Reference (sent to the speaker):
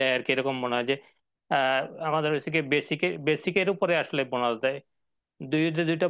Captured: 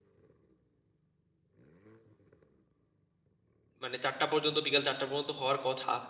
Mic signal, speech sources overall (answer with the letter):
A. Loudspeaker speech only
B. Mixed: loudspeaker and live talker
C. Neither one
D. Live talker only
D